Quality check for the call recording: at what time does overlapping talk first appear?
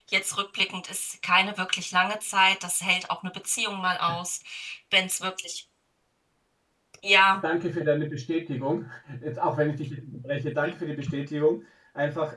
none

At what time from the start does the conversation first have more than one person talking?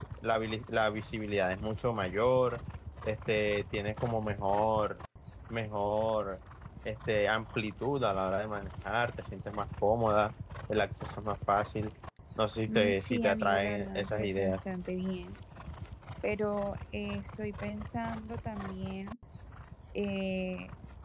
12.7 s

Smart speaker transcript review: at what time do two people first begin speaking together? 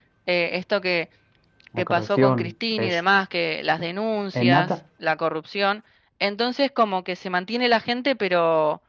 1.8 s

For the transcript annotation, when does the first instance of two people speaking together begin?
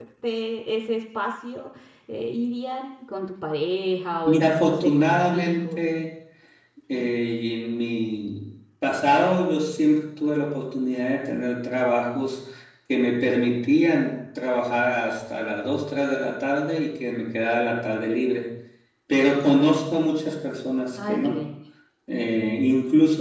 4.2 s

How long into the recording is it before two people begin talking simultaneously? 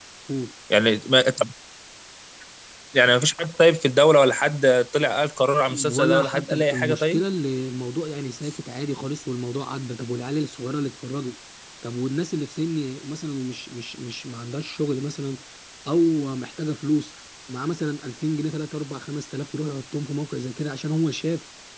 5.7 s

